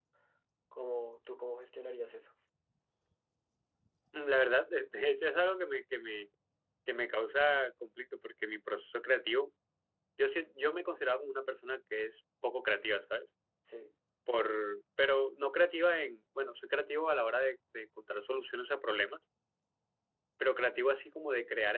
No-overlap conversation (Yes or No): Yes